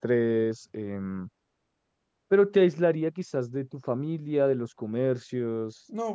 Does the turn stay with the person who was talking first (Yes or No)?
No